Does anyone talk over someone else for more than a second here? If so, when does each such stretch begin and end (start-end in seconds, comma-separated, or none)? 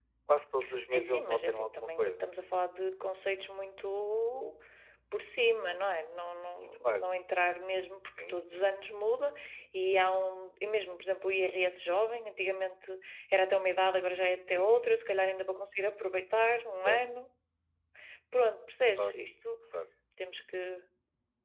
0.8-2.3